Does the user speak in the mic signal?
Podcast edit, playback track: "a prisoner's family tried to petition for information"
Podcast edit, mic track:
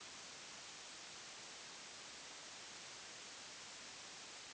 No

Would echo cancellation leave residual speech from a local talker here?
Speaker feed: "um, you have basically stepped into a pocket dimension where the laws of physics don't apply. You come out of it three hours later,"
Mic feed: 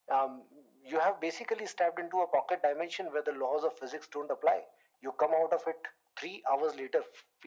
No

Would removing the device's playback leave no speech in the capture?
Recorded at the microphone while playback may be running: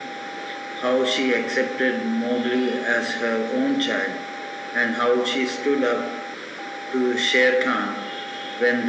Yes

